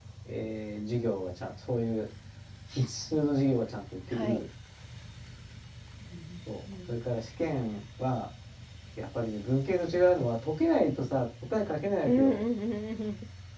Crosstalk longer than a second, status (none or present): none